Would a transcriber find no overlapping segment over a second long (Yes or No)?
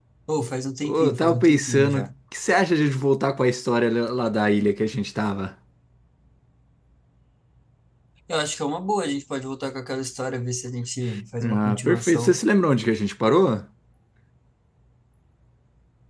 No